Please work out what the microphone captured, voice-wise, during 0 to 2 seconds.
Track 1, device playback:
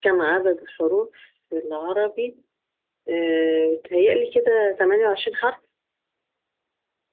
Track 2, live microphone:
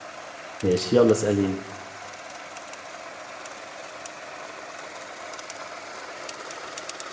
user only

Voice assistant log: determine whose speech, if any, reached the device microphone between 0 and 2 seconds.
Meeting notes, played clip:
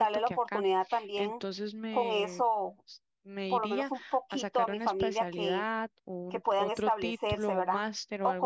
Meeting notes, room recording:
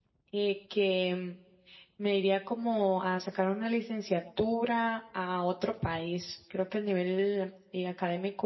user only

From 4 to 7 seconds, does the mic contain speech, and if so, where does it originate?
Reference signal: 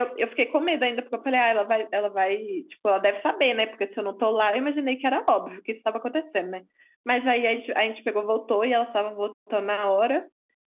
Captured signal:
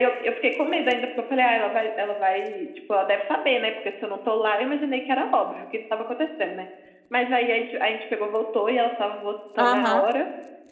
echo only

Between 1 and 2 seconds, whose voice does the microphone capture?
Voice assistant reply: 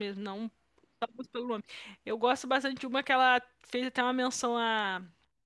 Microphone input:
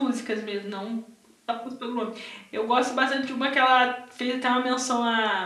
echo only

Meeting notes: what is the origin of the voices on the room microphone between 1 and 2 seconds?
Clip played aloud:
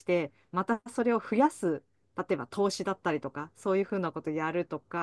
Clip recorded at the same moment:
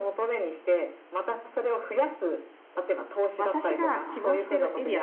echo only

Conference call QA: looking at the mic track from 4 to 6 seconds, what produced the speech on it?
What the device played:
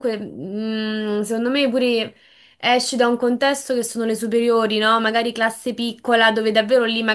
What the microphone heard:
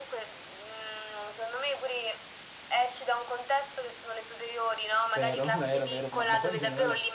both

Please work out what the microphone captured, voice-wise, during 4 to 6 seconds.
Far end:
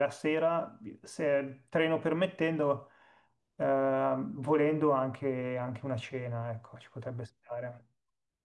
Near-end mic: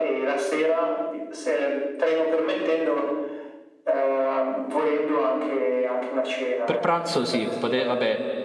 echo only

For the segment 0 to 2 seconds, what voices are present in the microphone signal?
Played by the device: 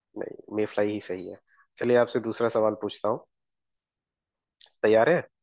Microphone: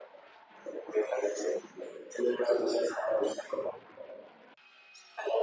echo only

